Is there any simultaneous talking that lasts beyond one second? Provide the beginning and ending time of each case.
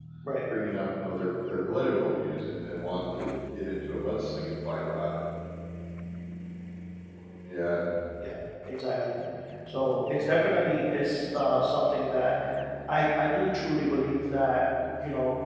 none

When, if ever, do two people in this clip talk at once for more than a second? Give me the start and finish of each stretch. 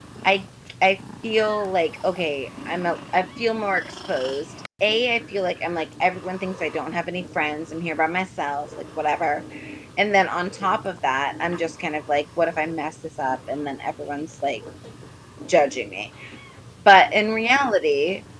none

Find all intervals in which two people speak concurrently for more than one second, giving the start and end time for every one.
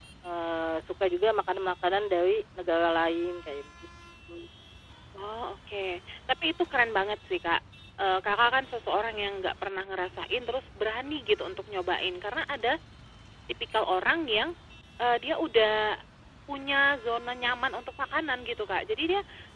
none

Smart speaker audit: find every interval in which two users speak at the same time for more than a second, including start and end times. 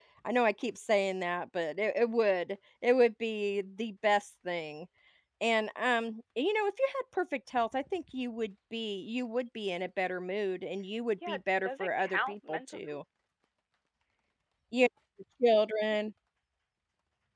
11.3-13.0

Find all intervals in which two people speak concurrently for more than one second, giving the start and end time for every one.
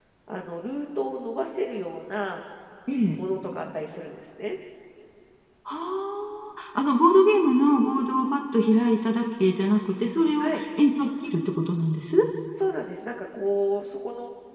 none

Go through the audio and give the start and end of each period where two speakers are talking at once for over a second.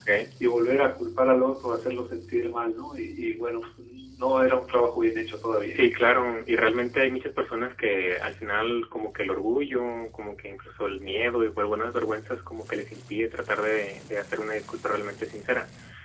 none

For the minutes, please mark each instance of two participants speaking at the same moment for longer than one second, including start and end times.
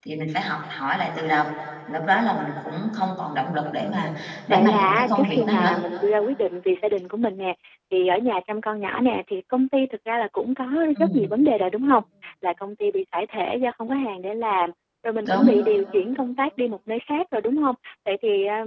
4.5-5.8

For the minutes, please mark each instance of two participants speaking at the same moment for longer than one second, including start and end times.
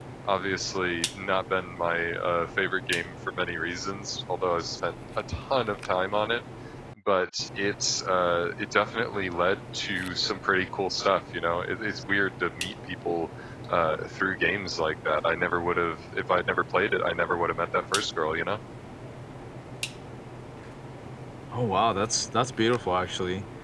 none

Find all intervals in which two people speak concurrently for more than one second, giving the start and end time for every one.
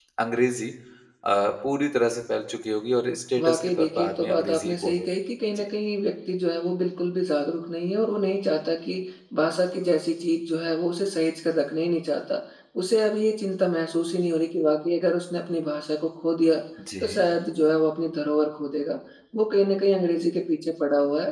3.4-5.1

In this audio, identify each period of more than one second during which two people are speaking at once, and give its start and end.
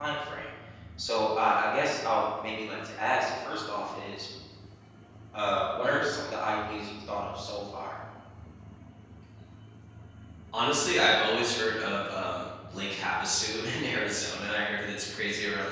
none

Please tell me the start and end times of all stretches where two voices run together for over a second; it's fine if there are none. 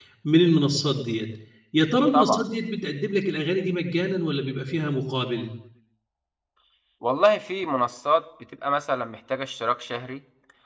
none

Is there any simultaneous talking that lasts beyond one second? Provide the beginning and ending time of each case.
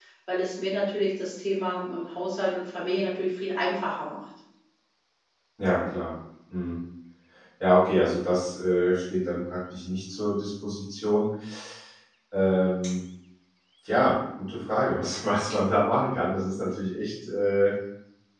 none

